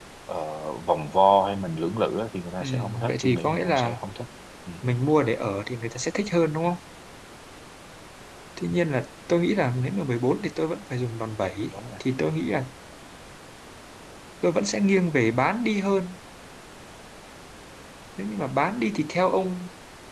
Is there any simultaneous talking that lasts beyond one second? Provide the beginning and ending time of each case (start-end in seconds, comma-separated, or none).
2.6-3.9